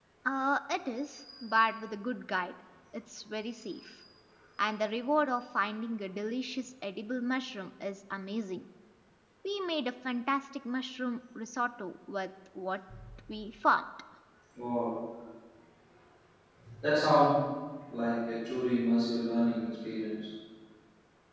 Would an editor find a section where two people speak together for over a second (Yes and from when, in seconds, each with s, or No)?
No